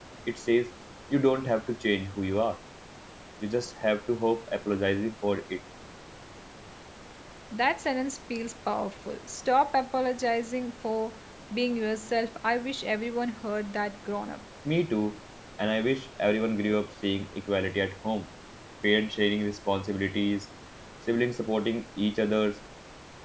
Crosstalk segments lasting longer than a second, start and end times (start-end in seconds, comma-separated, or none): none